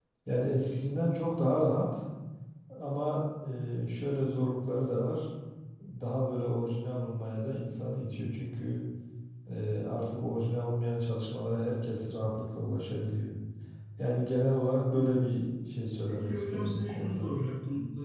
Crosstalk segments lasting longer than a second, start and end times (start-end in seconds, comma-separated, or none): 16.1-17.3